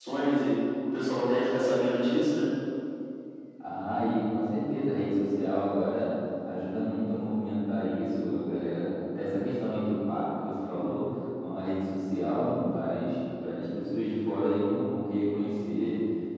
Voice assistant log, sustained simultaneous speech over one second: none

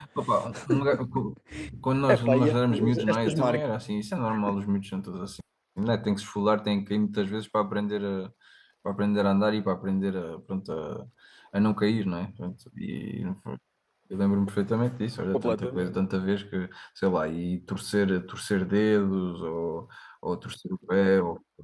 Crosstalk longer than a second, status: present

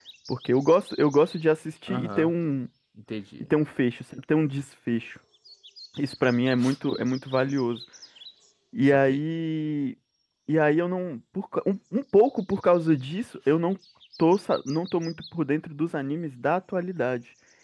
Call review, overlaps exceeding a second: none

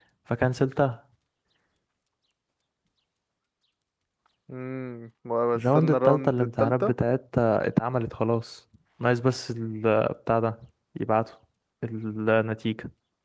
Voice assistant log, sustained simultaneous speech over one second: present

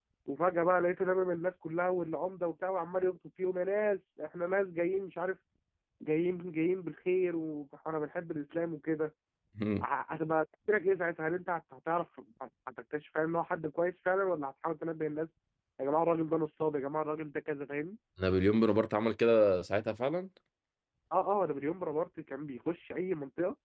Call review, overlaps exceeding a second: none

